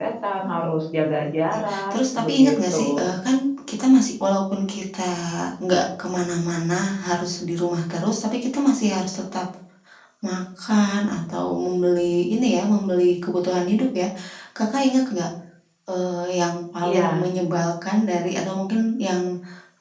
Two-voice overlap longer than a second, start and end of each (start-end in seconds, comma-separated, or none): 1.4-3.1